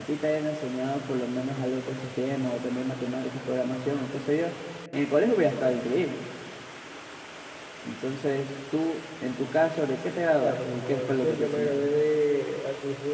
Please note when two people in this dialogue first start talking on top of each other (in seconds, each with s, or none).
10.4 s